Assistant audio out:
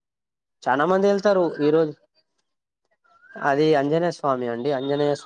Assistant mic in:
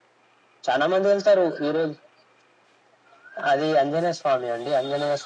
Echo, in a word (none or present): present